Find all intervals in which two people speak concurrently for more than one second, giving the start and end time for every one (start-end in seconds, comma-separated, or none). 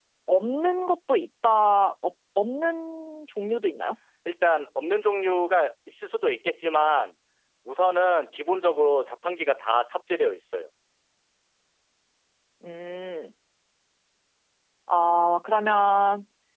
none